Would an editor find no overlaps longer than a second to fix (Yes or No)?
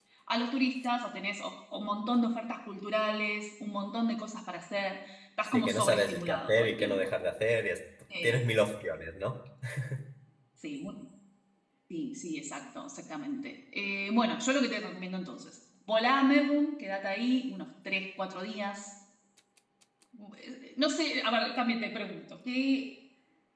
No